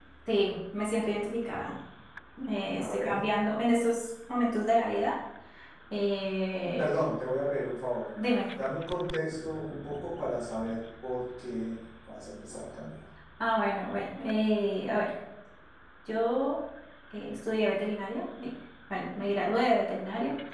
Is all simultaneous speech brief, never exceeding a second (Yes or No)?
Yes